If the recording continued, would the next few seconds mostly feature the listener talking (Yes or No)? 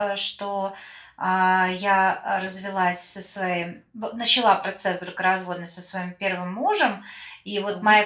No